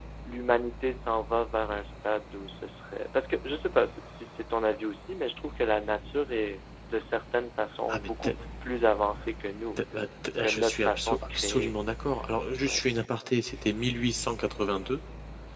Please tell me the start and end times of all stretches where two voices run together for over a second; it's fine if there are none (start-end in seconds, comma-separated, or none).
10.4-11.8